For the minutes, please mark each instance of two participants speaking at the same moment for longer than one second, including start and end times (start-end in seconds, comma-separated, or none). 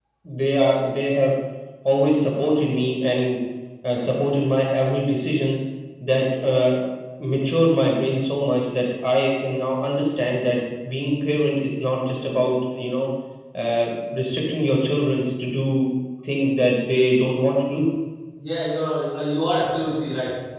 none